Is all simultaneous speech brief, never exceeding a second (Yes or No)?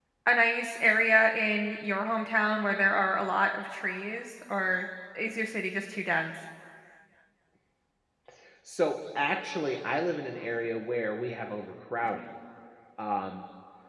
Yes